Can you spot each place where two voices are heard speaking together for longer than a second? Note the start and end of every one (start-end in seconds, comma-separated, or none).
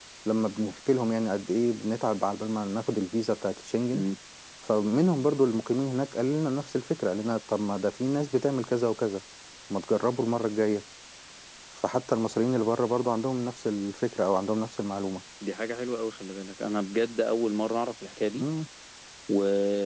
none